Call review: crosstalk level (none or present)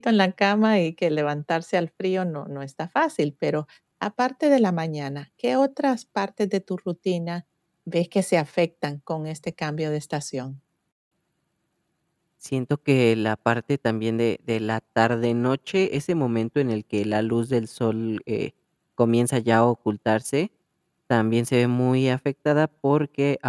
none